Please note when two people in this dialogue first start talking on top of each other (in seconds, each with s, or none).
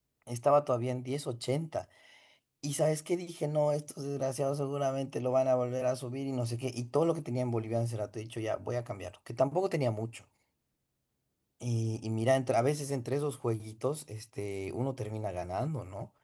none